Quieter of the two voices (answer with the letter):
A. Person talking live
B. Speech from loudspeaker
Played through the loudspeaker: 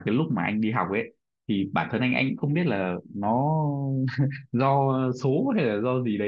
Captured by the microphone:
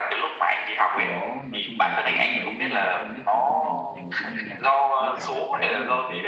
A